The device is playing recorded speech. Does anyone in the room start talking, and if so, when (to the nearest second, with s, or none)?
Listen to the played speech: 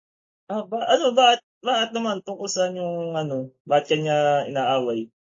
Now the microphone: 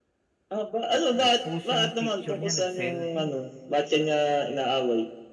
1 s